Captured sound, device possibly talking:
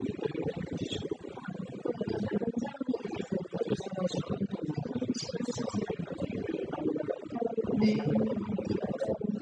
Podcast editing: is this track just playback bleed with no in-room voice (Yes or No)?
No